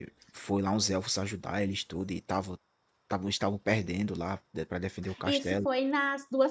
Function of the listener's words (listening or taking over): taking over